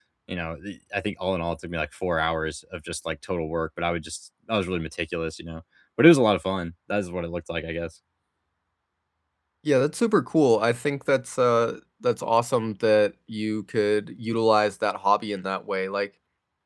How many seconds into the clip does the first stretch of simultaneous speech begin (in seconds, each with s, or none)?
none